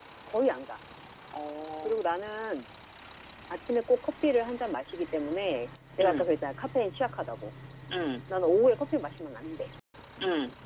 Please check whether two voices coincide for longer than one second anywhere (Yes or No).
No